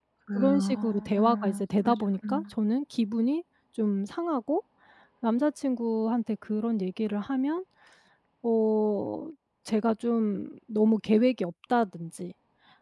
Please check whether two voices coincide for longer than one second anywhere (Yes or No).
Yes